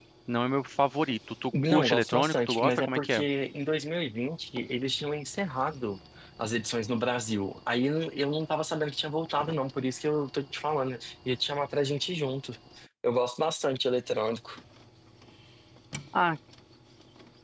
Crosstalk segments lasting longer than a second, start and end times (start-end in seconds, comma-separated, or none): 1.7-3.2